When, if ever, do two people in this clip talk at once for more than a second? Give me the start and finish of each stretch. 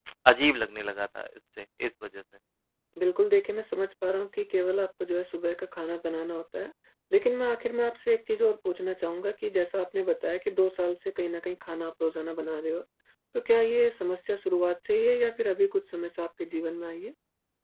none

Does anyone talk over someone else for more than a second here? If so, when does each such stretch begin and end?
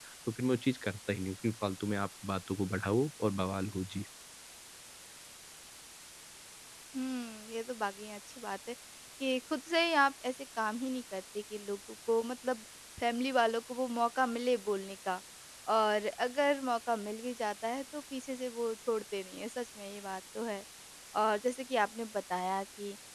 none

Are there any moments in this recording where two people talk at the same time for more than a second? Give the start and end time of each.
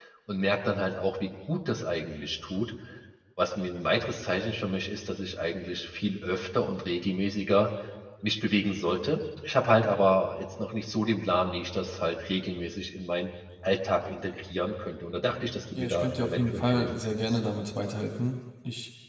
15.7-17.3

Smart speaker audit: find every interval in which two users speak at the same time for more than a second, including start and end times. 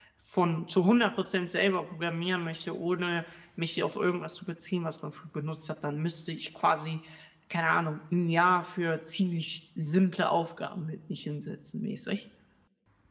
none

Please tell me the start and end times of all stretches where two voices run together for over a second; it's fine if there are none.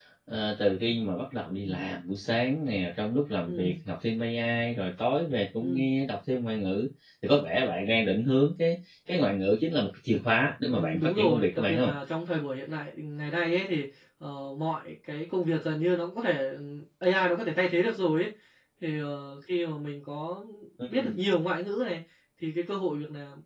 10.7-11.9

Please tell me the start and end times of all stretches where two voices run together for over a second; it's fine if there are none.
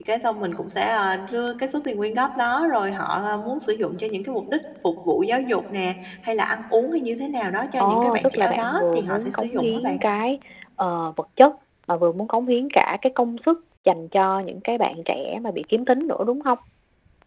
7.8-10.0

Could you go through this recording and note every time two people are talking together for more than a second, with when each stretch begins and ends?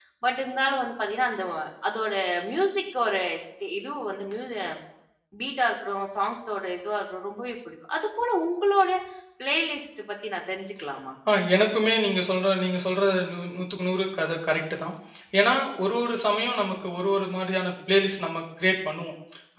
none

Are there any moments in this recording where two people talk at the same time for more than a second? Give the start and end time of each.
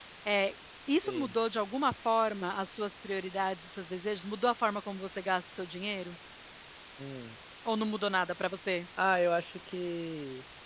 none

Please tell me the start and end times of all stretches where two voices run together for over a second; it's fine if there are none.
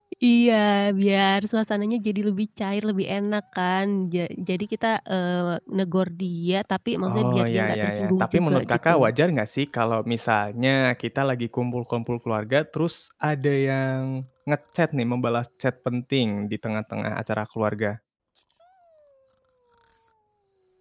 7.1-8.9

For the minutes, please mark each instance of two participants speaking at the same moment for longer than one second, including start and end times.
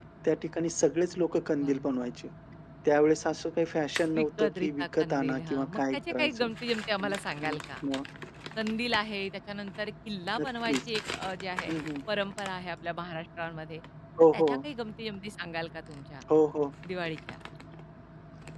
4.2-6.5

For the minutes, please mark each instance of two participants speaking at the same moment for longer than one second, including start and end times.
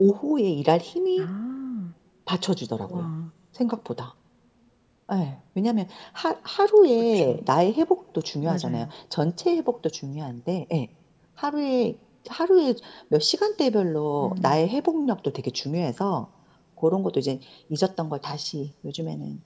none

